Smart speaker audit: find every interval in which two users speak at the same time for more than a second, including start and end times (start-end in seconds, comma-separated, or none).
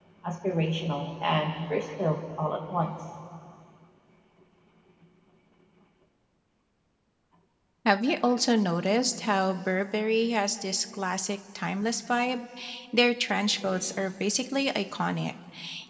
none